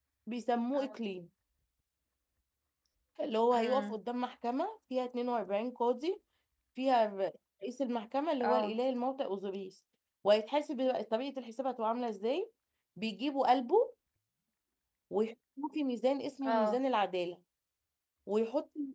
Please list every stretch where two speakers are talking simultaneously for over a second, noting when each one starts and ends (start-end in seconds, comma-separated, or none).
none